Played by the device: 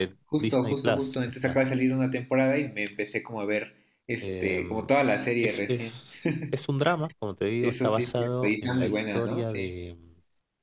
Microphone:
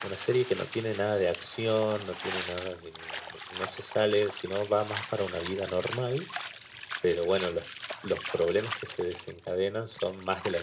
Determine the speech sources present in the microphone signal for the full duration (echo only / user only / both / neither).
user only